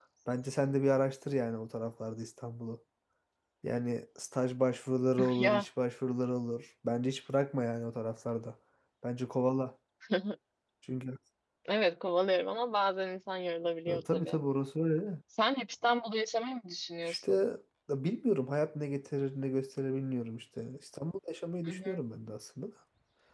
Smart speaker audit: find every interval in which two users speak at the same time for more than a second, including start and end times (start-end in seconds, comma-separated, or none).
none